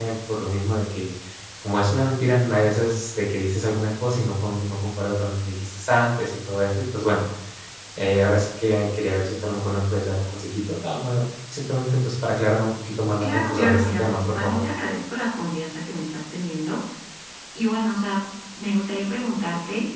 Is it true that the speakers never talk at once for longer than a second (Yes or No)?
No